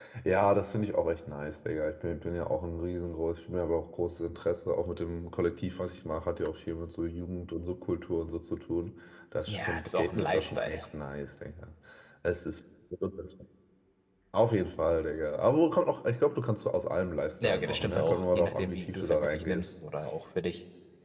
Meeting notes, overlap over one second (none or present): present